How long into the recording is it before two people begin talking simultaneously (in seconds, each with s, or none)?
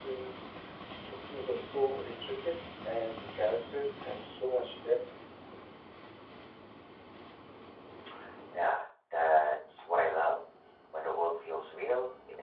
none